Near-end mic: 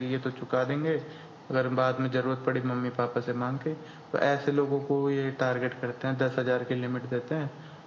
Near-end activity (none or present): none